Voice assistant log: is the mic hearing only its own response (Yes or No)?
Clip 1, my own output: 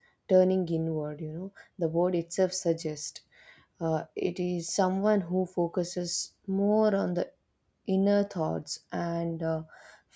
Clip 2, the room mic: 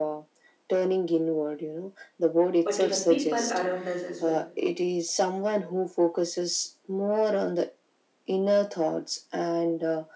No